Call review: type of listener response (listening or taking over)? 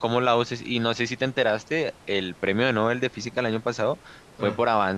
listening